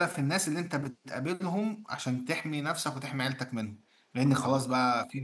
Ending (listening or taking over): listening